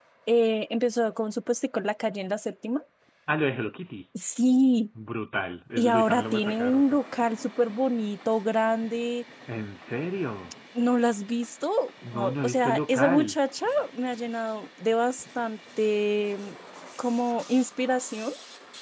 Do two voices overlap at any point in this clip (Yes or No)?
Yes